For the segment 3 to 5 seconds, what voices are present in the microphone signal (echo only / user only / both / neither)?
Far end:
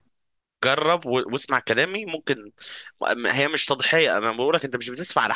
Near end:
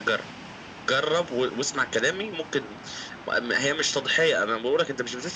echo only